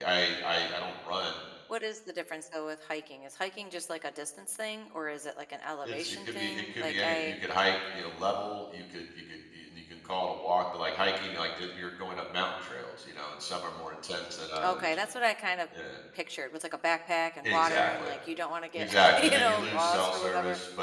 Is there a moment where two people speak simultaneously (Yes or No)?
Yes